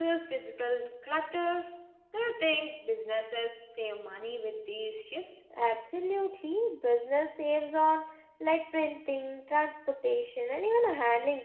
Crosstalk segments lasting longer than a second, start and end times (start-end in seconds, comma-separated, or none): none